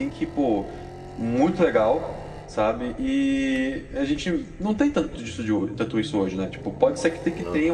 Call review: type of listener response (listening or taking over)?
listening